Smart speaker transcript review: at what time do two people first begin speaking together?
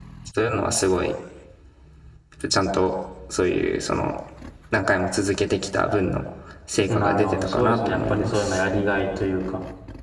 6.9 s

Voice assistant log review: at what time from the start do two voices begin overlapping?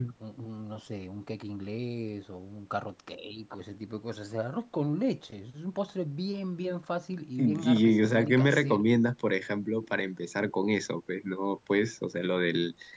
7.4 s

